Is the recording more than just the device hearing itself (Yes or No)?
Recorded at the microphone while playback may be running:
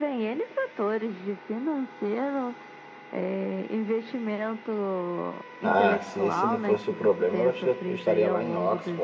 Yes